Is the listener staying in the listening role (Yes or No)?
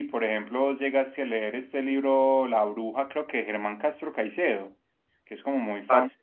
Yes